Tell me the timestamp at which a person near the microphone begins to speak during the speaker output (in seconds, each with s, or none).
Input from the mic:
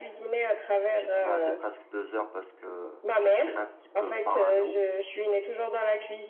0.9 s